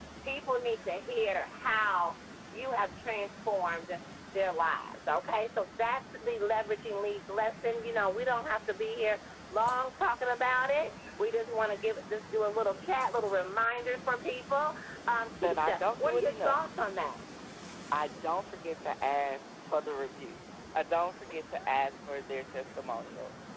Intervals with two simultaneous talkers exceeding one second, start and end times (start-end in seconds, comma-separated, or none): 15.4-16.6